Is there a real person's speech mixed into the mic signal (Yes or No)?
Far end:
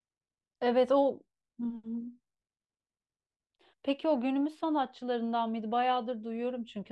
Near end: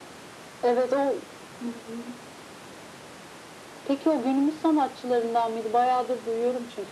No